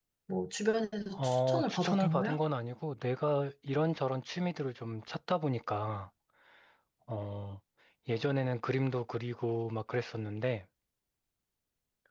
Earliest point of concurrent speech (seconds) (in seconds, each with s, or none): 1.2 s